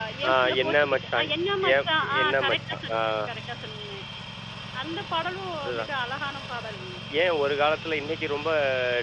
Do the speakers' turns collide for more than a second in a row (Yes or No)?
Yes